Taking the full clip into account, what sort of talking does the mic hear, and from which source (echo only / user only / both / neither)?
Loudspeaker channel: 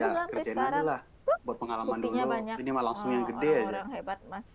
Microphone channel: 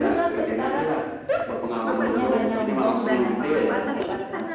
both